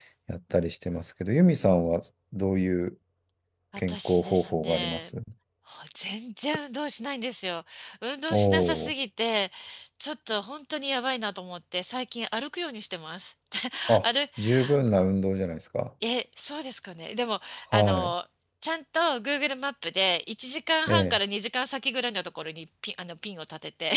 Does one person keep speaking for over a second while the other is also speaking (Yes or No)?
Yes